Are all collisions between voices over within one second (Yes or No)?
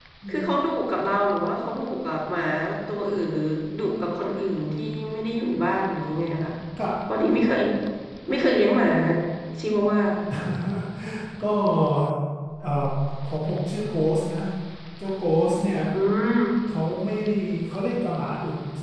Yes